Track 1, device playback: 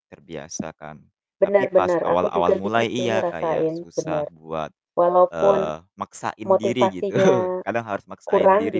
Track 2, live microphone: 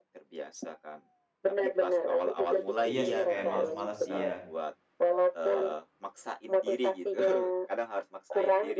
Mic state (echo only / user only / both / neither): both